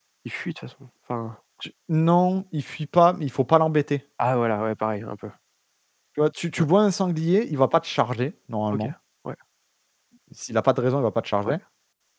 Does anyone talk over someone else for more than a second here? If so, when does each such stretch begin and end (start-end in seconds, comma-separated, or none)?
none